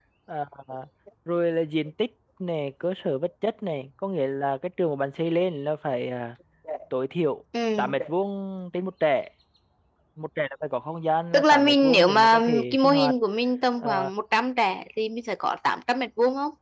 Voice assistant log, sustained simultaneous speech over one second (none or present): present